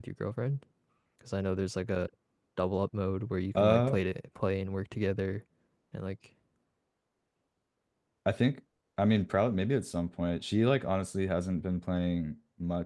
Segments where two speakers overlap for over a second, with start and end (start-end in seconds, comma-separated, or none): none